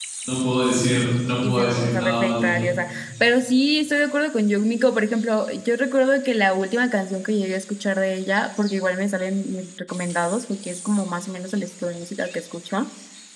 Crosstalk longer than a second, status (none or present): present